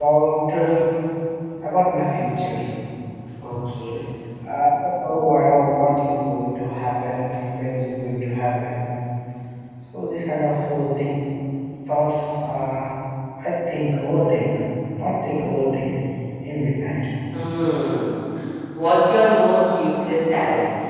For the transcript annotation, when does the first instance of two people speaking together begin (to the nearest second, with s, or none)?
none